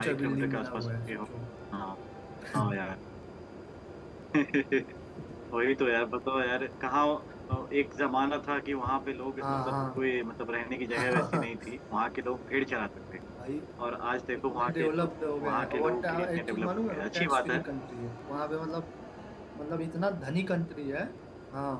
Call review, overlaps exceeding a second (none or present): present